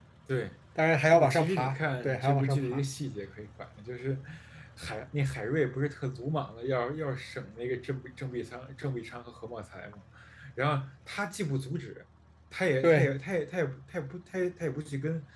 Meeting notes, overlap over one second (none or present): present